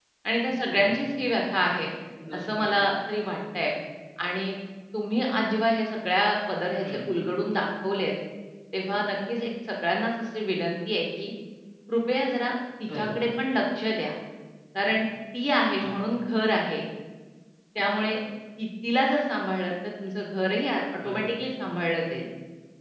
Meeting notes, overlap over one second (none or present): none